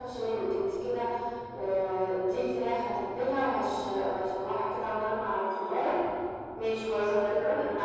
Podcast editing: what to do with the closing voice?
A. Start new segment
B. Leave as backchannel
B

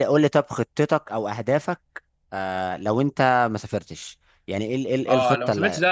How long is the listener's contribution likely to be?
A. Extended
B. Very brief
A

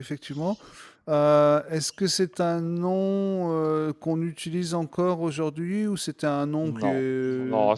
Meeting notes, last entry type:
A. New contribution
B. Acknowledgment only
A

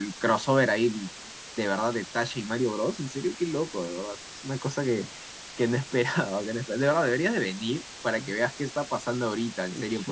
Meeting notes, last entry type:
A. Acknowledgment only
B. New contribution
B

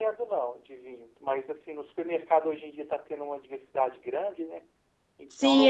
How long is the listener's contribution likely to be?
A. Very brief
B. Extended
B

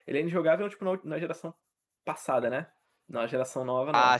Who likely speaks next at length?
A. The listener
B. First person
B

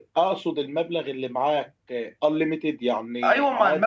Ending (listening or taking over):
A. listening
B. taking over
B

